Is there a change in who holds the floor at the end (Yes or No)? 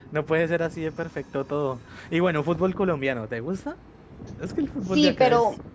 Yes